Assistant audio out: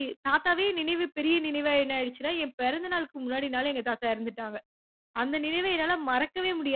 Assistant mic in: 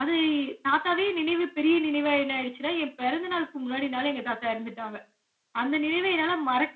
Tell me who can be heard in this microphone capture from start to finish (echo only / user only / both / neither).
echo only